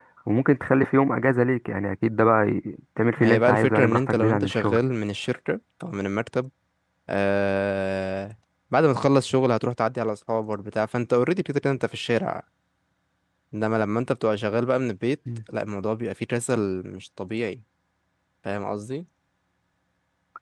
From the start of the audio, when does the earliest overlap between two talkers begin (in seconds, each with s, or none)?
3.2 s